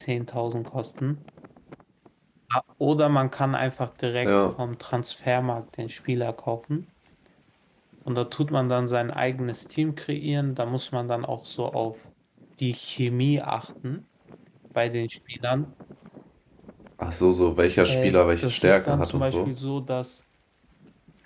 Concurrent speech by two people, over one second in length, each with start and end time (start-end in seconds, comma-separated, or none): 17.9-19.5